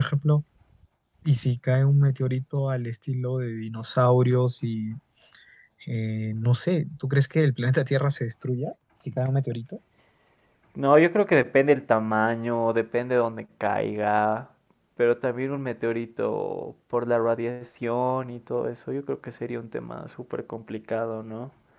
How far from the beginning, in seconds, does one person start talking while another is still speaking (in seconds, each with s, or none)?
none